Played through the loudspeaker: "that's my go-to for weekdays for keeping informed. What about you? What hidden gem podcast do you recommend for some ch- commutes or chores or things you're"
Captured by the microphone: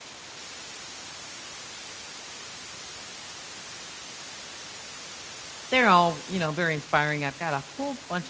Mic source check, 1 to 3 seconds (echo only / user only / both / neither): neither